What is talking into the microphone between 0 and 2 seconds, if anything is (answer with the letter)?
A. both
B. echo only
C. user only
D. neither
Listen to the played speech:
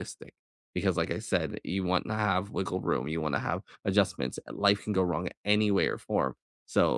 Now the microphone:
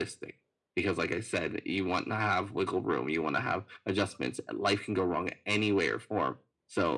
B